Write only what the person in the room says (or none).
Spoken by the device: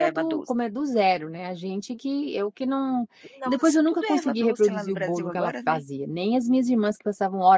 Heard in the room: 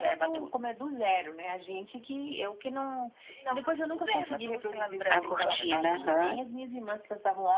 A cortina, aham.